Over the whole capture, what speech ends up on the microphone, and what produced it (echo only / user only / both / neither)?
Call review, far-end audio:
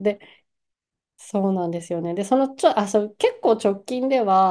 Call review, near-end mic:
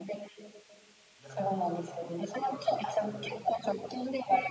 both